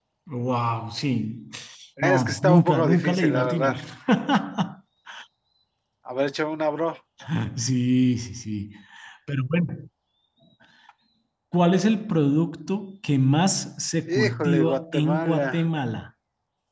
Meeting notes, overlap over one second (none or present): present